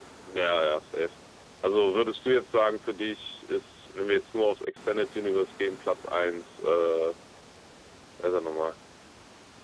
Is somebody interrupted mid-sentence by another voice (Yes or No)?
No